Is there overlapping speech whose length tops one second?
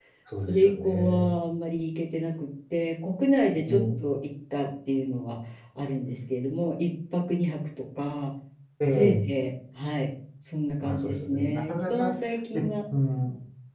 Yes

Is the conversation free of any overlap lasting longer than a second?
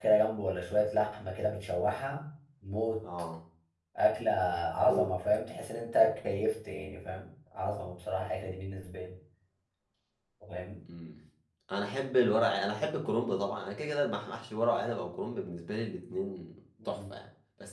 Yes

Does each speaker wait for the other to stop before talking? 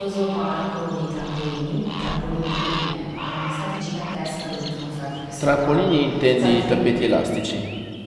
No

